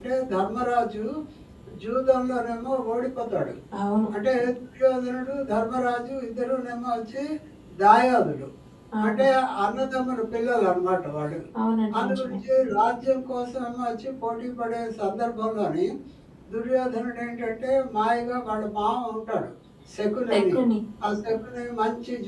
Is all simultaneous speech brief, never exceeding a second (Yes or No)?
Yes